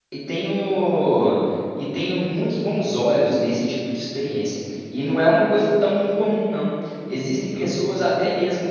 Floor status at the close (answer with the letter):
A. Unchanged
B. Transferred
A